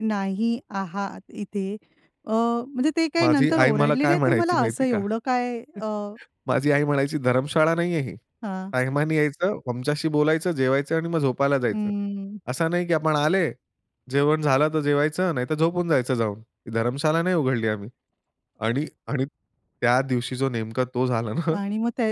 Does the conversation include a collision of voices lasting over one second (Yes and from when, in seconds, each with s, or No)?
Yes, from 3.2 s